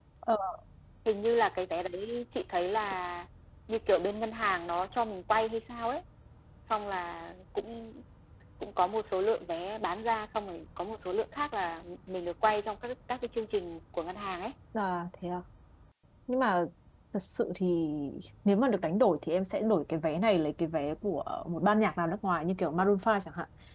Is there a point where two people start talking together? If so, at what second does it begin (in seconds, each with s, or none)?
none